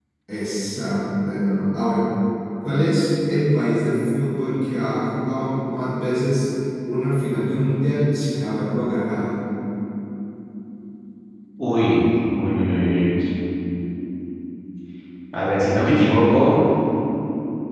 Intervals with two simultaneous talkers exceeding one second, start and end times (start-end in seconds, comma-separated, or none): none